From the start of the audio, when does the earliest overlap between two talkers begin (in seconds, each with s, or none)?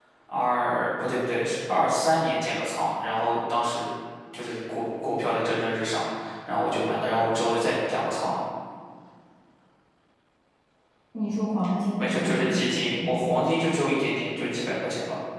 12.0 s